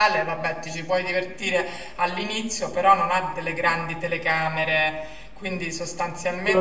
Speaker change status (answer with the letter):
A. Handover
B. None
A